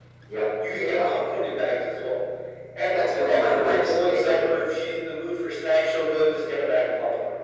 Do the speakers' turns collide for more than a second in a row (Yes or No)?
Yes